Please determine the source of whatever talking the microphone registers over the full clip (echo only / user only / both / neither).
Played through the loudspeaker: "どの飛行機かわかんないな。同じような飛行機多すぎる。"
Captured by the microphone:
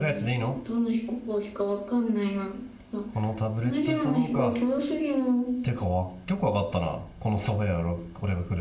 both